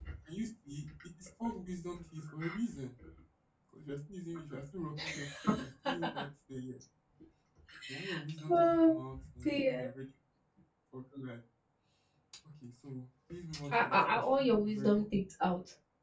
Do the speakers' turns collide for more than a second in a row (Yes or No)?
Yes